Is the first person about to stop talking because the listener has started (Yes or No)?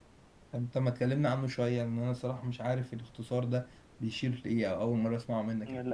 Yes